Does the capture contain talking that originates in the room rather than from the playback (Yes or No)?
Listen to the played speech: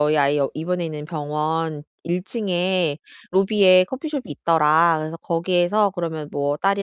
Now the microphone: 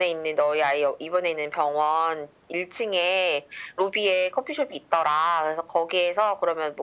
No